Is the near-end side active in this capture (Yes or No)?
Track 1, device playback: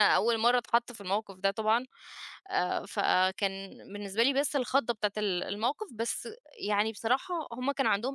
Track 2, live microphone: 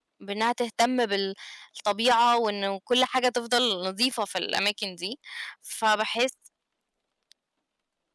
Yes